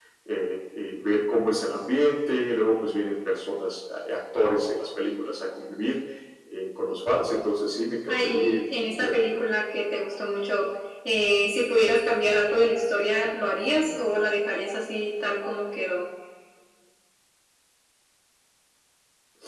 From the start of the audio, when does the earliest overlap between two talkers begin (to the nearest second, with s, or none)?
8 s